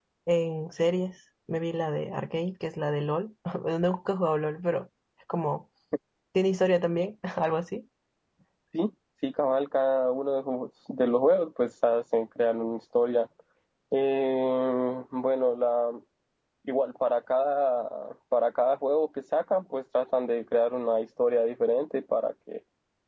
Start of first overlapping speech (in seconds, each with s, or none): none